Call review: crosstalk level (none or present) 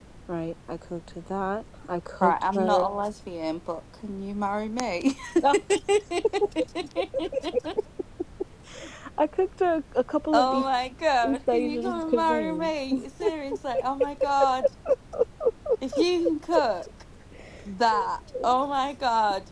present